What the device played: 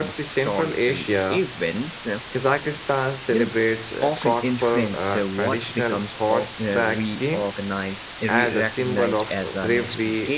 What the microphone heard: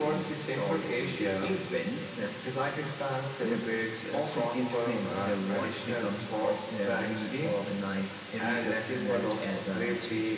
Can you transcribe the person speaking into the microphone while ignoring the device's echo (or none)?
none